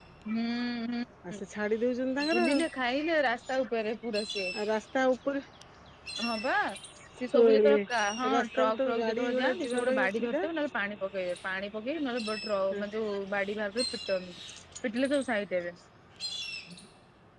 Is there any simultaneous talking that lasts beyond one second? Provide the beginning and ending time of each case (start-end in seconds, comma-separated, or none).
8.3-10.4